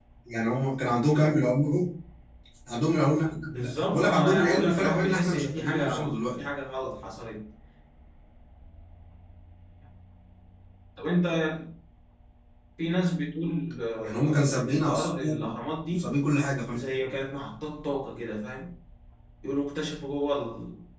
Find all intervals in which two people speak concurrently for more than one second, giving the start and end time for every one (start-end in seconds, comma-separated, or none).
3.6-6.5, 14.0-15.3